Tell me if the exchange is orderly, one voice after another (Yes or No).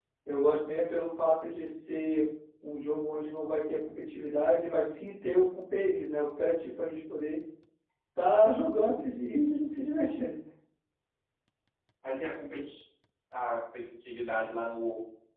Yes